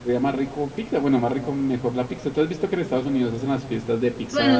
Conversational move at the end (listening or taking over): taking over